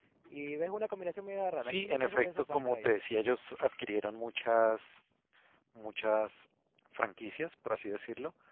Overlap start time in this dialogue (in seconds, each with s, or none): 1.6 s